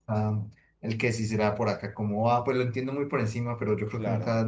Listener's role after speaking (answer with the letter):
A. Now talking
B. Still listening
B